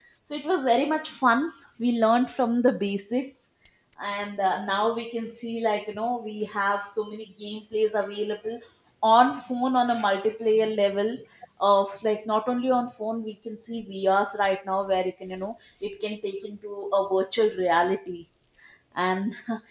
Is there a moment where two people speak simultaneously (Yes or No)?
No